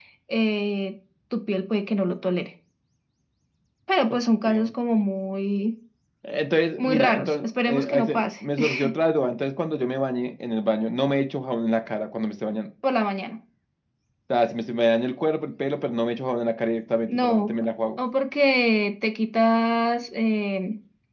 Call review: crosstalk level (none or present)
present